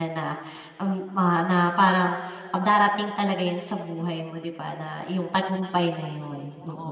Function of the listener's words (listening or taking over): taking over